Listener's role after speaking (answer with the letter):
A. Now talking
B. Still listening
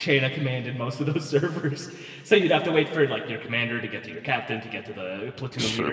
A